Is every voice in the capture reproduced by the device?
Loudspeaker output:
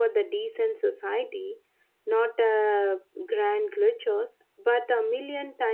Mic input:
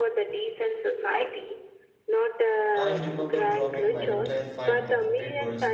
No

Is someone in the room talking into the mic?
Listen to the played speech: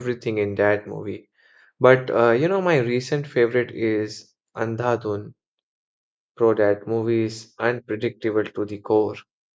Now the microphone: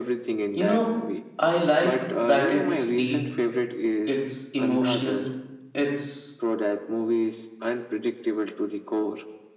Yes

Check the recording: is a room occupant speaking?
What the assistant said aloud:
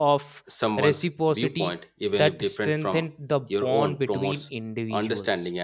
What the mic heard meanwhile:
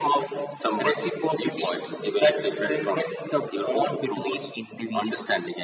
No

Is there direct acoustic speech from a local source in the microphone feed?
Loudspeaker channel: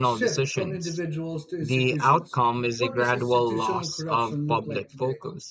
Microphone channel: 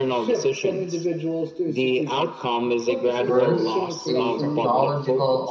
Yes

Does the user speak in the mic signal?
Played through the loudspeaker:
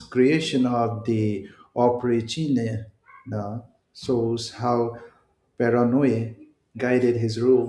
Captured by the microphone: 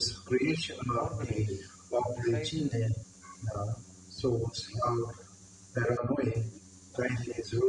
Yes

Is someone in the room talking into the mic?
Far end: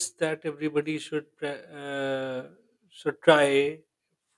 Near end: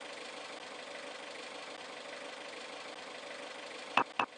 No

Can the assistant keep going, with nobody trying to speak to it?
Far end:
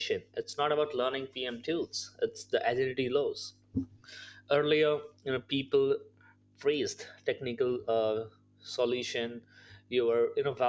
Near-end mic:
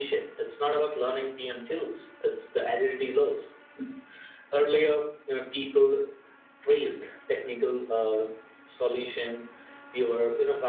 Yes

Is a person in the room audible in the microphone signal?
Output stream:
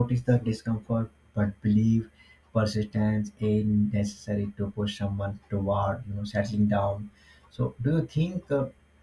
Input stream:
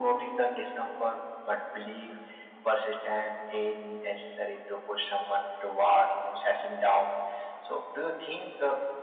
No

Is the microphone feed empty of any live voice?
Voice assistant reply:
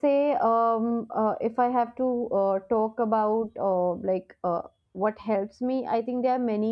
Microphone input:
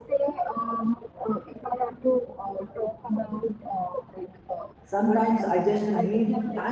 No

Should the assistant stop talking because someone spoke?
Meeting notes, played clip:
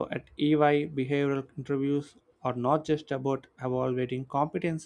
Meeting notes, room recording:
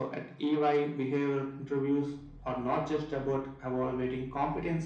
No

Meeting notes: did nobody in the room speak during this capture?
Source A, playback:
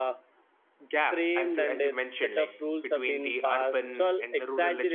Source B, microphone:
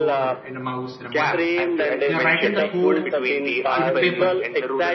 No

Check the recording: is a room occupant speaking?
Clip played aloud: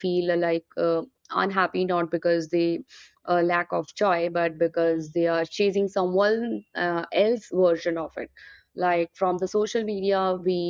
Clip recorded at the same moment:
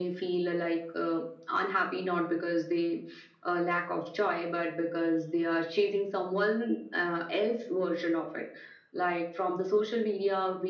No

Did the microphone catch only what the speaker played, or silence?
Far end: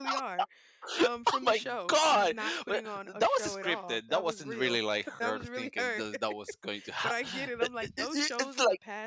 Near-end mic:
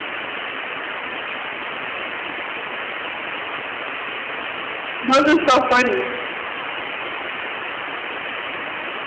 No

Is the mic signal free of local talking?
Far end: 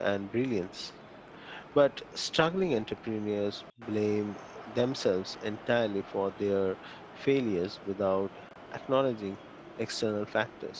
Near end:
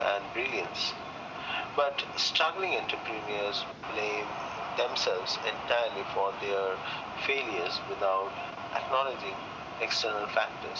Yes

